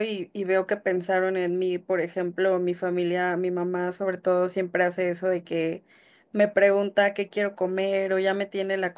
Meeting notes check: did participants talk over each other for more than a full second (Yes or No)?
No